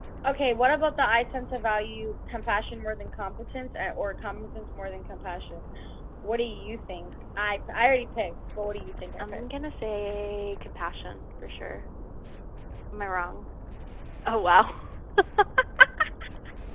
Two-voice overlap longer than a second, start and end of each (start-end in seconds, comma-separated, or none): none